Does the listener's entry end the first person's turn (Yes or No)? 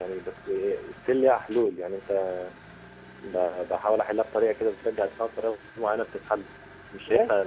Yes